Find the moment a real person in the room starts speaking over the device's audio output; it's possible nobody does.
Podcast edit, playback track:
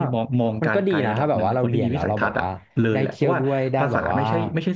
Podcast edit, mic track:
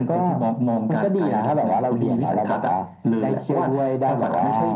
none

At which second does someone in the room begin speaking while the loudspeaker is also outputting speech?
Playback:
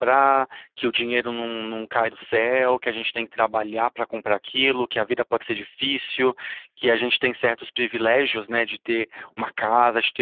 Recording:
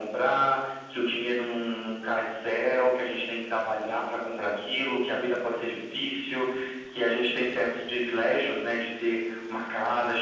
none

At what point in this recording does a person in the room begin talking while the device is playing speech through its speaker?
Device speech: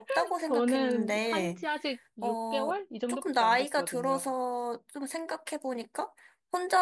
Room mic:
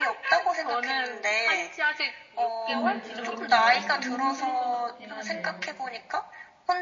2.6 s

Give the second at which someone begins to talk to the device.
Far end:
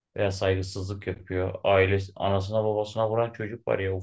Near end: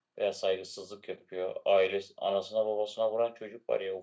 none

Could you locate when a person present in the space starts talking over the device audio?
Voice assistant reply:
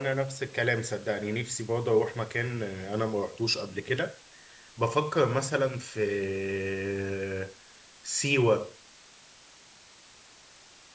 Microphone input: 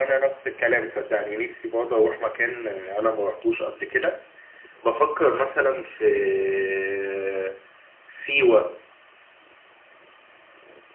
none

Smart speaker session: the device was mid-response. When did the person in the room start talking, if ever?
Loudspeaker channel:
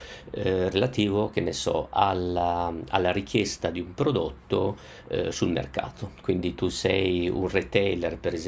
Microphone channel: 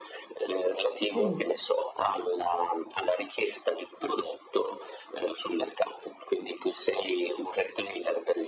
1.0 s

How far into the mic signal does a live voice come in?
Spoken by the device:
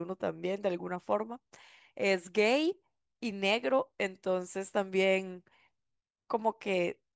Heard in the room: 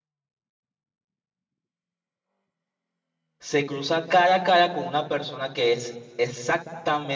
3.4 s

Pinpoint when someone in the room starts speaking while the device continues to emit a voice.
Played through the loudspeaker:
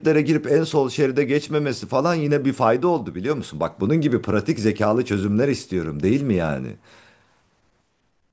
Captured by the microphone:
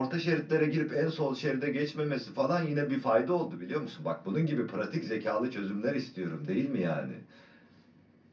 none

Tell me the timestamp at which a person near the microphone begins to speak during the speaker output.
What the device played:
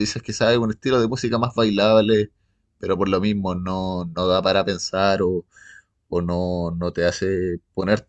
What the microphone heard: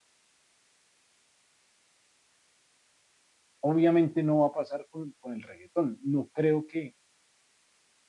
3.6 s

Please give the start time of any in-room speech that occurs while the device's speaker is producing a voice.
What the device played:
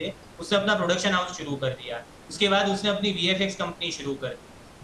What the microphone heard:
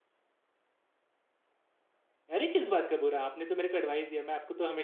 2.3 s

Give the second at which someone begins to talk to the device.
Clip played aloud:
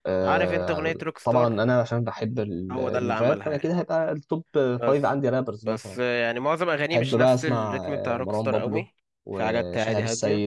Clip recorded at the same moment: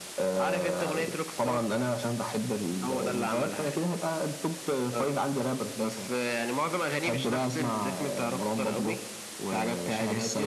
none

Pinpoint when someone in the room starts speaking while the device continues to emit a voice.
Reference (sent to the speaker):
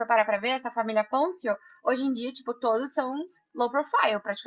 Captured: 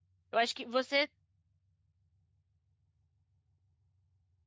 0.3 s

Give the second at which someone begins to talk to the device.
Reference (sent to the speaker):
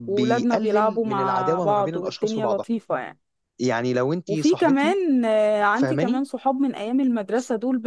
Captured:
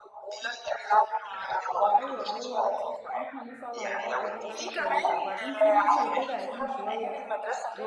1.9 s

